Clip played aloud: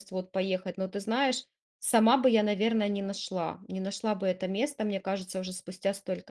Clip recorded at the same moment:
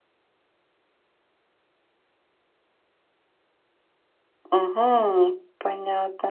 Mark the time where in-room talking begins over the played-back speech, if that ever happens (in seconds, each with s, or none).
4.5 s